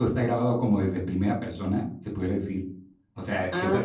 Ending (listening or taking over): listening